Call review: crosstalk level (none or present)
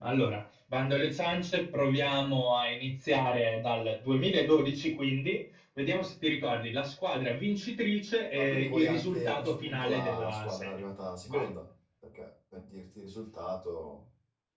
present